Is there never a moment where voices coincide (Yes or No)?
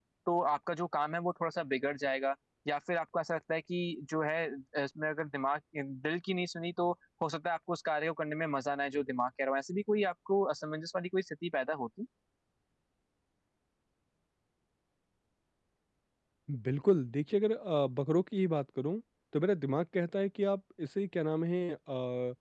Yes